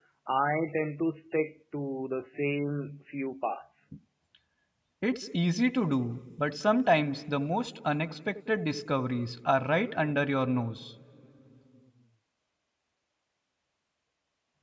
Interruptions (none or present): none